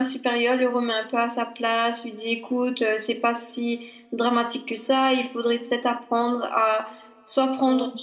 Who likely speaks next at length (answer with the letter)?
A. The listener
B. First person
B